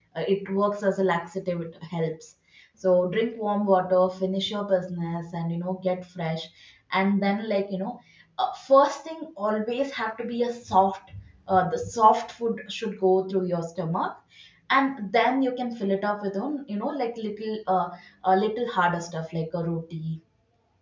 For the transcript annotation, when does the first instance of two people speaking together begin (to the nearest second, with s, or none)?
none